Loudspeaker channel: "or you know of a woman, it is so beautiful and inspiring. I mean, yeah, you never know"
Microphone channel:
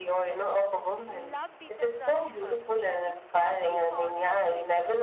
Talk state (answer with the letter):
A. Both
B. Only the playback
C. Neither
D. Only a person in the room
A